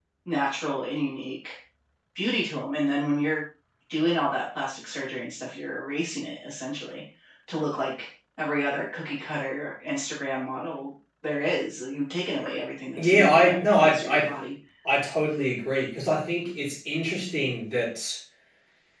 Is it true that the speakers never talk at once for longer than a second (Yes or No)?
No